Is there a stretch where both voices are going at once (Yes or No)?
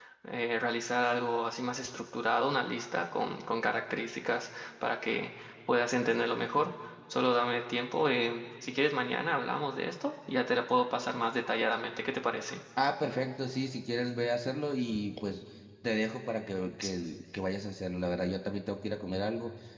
No